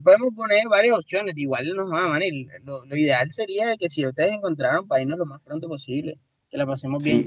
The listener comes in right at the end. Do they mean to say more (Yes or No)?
Yes